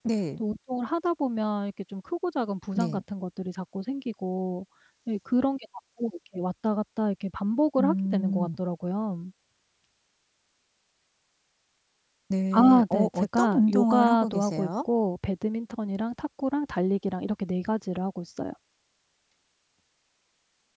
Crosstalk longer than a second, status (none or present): present